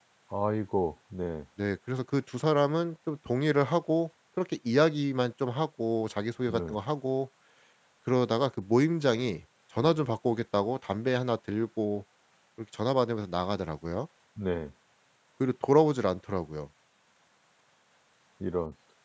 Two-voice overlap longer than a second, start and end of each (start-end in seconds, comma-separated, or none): none